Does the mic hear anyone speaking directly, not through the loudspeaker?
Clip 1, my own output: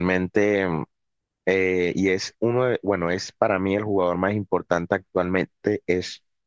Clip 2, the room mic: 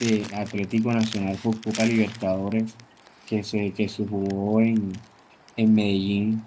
Yes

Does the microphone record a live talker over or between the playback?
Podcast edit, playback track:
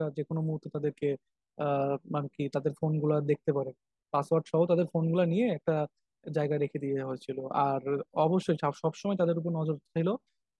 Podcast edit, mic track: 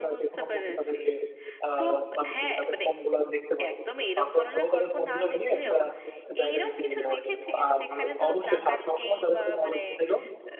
Yes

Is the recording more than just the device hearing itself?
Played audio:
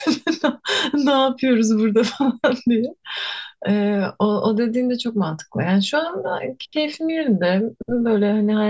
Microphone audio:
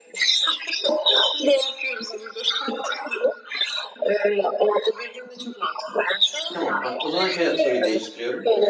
Yes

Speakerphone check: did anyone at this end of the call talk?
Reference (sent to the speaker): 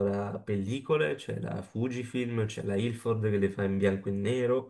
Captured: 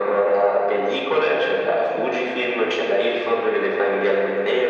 No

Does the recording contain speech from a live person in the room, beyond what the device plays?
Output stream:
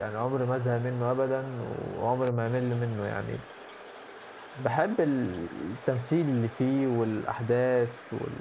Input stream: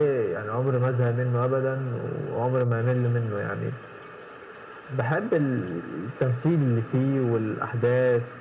No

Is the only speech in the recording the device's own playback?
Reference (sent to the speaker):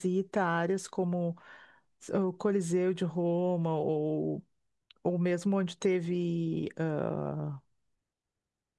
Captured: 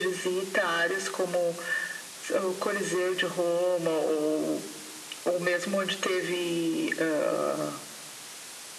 Yes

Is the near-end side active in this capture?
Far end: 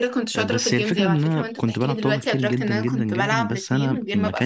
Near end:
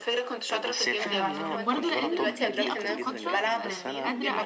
Yes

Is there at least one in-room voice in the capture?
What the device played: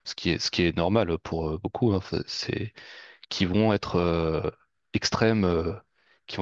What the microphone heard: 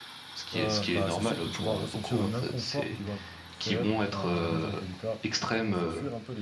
Yes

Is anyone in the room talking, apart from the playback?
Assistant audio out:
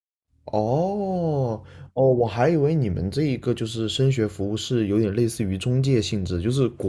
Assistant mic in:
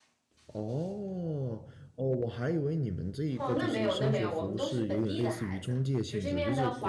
Yes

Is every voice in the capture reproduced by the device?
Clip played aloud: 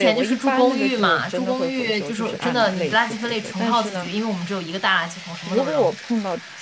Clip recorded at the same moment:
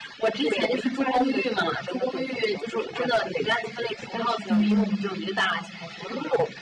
No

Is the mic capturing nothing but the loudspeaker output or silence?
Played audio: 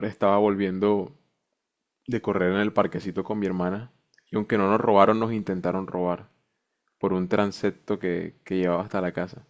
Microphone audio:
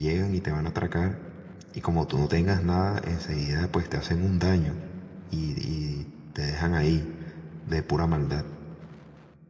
No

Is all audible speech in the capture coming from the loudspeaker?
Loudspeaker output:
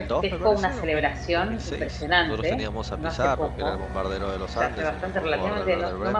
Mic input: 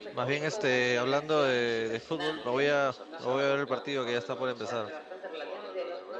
No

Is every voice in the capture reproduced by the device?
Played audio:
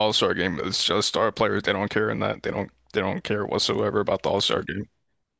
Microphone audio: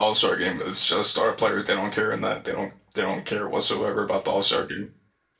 Yes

